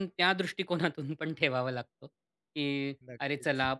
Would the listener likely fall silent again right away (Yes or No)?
Yes